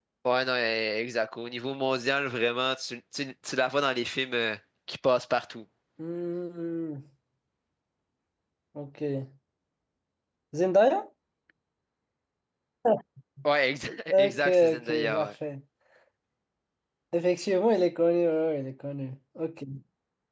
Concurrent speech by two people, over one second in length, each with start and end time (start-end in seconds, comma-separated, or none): 14.1-15.3